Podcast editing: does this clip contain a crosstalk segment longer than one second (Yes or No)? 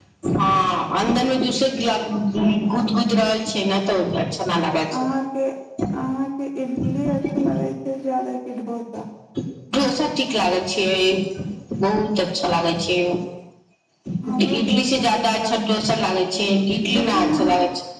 Yes